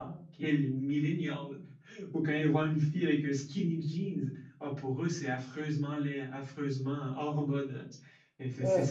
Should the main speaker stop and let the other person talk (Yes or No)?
No